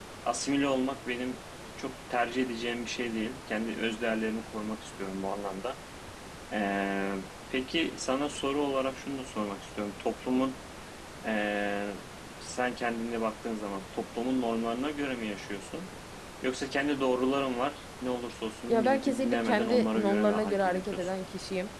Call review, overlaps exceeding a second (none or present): present